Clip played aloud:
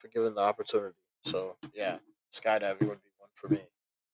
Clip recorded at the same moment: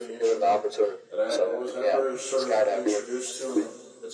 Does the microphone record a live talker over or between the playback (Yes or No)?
Yes